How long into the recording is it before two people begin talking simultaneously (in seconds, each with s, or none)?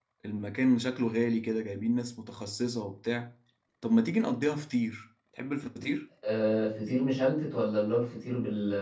none